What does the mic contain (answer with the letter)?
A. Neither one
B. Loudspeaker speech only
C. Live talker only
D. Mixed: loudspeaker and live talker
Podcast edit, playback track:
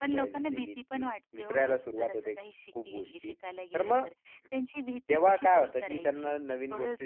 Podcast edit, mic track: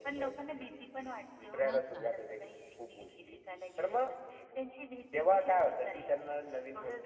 D